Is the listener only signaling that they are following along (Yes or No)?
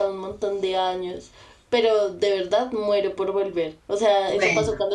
Yes